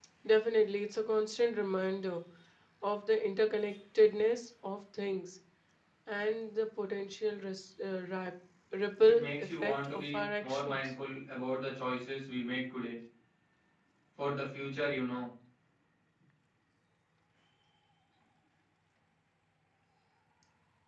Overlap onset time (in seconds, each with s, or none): 9.1 s